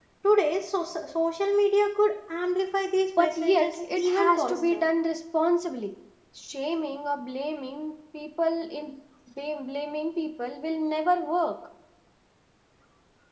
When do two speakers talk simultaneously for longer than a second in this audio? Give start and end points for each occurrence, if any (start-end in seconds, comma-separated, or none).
3.2-4.8